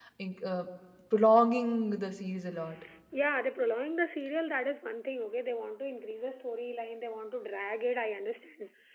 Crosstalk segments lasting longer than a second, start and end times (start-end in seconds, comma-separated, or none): none